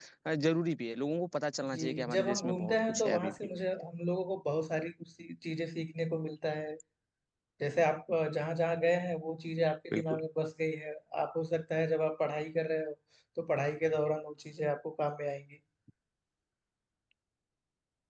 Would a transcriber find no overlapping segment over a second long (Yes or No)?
No